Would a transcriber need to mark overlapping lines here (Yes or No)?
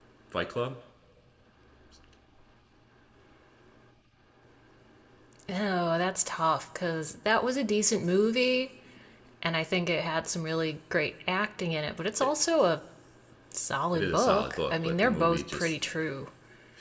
Yes